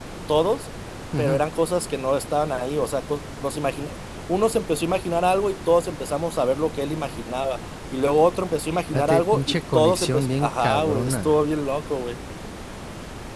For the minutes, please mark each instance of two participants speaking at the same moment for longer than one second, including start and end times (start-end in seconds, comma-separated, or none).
8.9-11.4